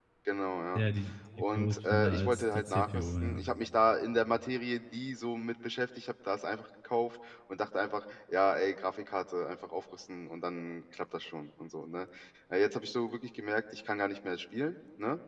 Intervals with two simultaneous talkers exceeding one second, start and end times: 1.5-3.4

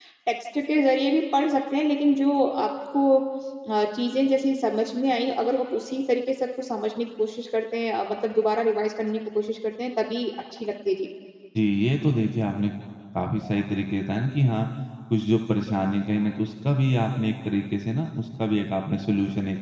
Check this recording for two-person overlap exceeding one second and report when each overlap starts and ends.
none

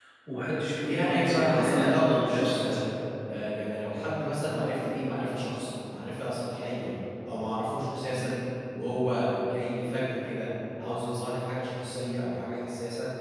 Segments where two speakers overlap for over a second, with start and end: 0.8-2.8

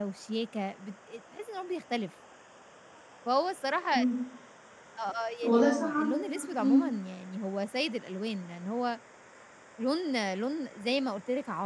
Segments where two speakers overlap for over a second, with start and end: 5.4-6.8

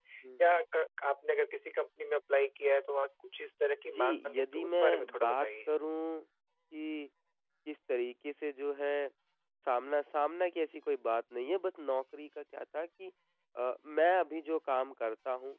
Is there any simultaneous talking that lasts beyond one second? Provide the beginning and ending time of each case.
4.0-5.5

